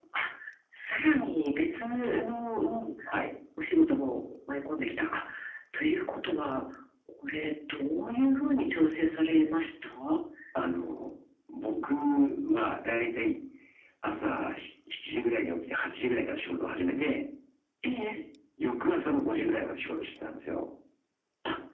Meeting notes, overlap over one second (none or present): none